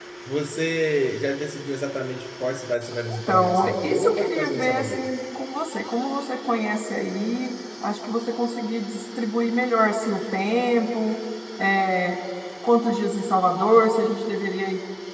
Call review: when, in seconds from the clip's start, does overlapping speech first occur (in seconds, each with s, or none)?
3.0 s